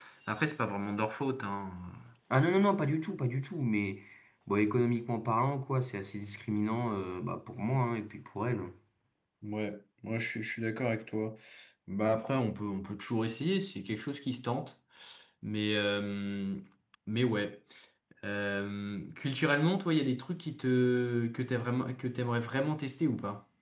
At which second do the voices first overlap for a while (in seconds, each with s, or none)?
none